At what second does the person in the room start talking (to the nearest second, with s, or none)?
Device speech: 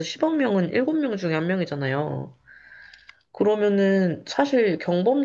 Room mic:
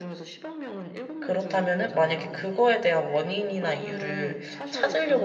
1 s